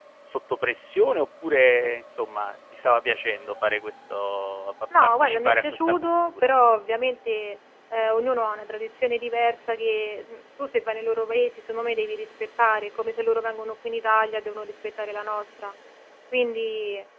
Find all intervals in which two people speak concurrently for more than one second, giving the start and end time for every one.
5.0-6.5

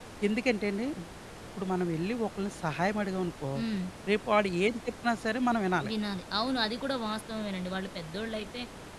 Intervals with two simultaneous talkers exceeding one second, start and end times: none

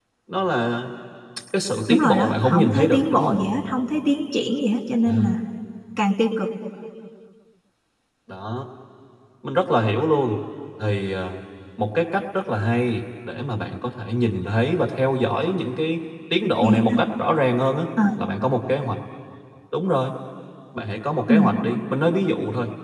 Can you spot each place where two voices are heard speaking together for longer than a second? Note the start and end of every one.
1.9-3.3

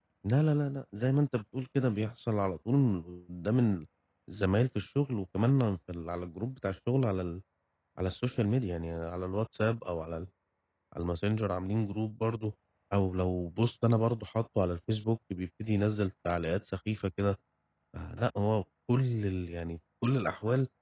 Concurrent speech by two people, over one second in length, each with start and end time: none

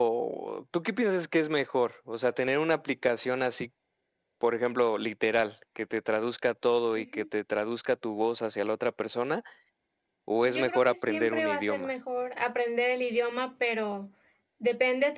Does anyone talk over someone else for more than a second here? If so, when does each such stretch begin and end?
10.4-11.9

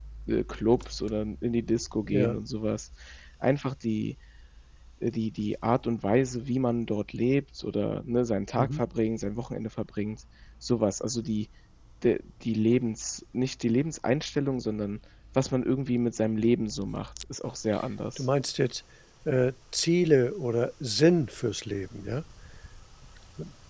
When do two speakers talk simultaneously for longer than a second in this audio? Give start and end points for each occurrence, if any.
none

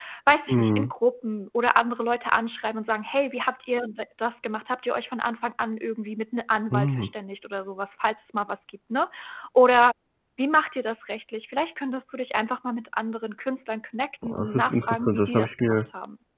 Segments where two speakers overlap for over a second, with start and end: 14.2-15.8

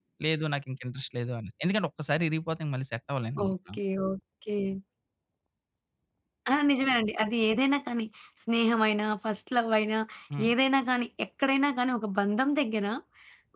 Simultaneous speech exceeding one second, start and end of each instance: none

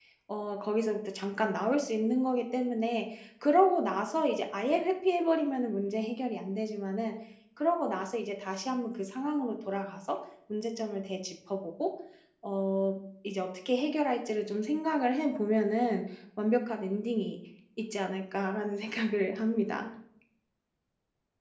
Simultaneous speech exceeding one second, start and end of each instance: none

